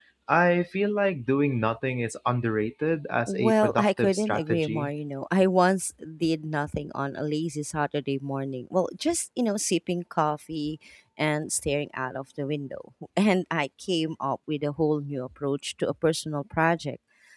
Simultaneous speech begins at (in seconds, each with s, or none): 3.3 s